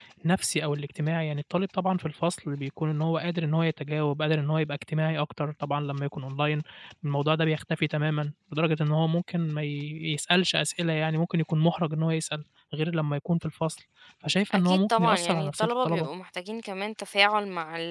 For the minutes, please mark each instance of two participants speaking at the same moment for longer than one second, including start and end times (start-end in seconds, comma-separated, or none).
14.5-16.1